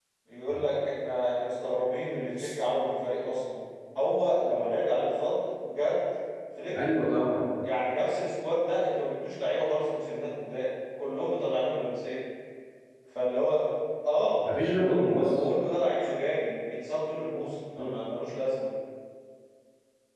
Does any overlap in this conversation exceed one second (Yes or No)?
No